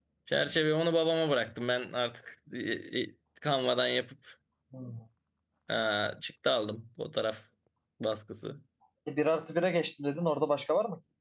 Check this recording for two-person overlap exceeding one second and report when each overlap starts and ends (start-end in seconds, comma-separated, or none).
none